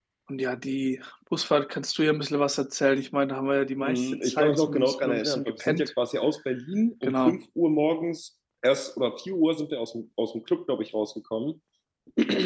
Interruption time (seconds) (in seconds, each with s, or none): 3.8 s